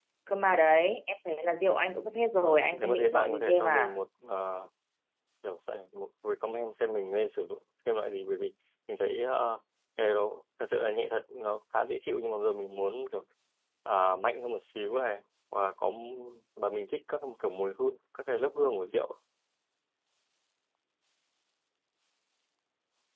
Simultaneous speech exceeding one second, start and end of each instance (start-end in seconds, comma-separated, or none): 2.4-4.0